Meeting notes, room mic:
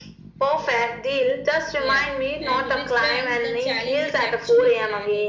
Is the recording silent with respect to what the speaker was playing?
No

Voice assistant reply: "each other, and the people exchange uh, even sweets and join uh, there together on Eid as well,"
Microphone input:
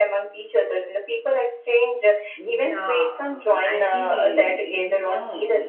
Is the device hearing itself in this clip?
Yes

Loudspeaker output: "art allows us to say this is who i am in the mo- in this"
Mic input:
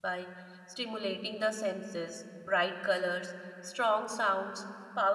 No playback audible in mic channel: Yes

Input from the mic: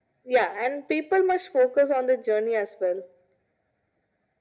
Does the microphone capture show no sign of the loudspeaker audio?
No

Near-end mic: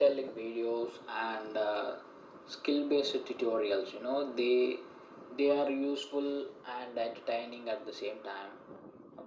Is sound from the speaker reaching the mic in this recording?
Yes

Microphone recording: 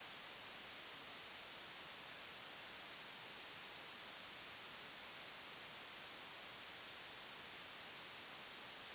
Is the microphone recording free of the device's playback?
Yes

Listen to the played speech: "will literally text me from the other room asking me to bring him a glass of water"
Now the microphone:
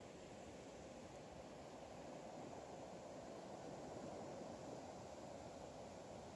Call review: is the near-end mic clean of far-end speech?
Yes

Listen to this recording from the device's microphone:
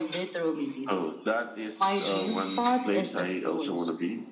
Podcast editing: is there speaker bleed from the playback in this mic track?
Yes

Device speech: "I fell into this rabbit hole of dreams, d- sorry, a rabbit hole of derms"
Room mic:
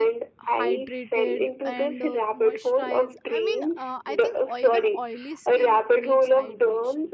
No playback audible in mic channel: No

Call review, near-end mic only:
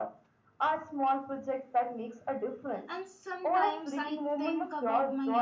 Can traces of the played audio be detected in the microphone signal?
Yes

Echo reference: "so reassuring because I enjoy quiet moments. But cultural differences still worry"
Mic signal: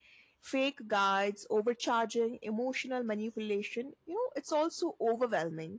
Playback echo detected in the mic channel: No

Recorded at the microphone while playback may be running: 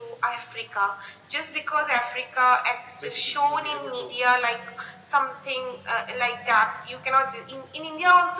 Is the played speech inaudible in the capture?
No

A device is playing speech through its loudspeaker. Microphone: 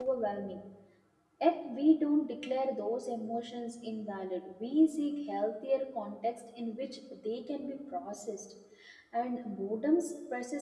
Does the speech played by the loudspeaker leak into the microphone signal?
No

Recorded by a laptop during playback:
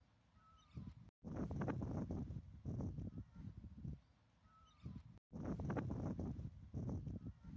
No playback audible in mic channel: Yes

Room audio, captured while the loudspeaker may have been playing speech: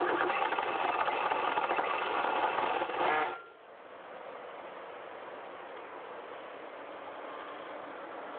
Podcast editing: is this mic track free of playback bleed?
Yes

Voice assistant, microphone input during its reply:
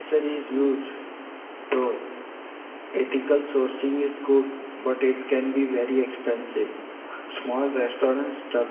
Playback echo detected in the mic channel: No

